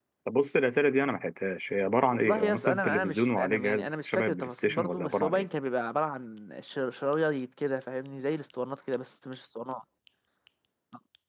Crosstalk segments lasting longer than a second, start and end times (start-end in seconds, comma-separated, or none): 2.1-5.5